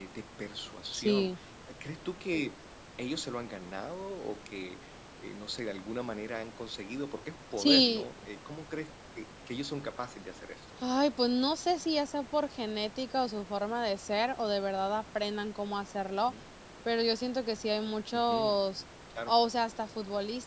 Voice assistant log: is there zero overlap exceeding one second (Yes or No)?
Yes